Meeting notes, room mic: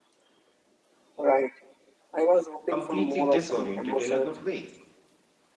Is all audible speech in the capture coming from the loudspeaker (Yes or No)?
No